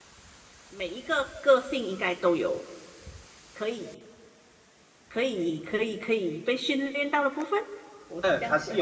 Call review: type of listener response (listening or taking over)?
taking over